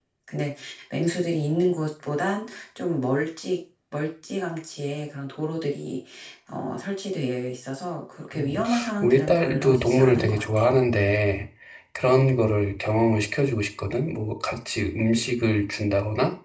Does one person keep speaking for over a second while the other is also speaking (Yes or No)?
Yes